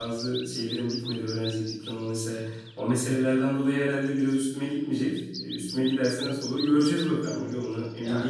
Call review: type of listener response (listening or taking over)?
taking over